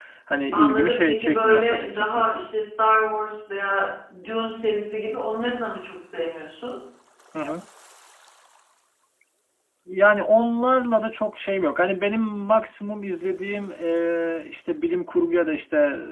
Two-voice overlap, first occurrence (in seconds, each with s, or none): 0.5 s